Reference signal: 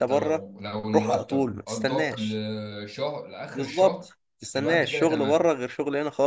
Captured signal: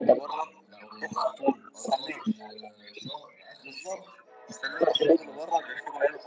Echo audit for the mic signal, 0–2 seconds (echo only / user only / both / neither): echo only